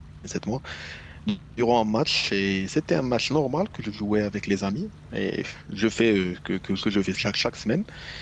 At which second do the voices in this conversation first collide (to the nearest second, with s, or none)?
none